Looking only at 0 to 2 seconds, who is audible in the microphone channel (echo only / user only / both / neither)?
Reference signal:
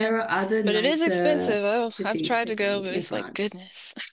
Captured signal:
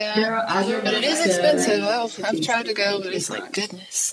both